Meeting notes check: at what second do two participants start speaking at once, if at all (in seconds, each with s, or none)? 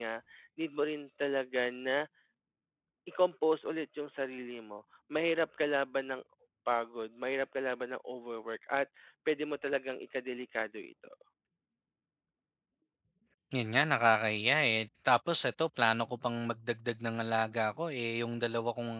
none